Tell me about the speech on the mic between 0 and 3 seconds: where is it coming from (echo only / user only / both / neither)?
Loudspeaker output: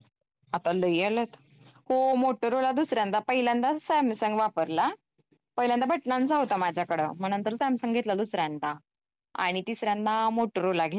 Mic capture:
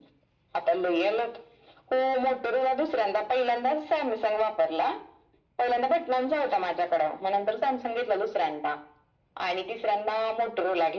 echo only